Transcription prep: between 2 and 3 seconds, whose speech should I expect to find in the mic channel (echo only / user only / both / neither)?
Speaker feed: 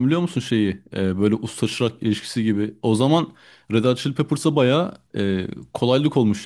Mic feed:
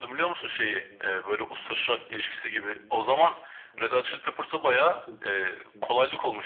both